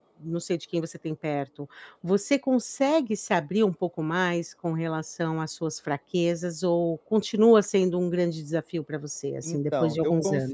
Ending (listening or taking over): taking over